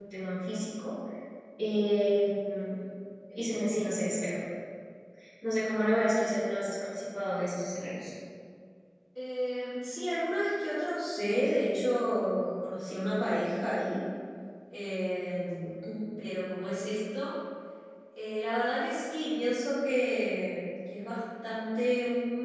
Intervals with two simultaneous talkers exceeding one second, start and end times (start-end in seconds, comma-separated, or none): none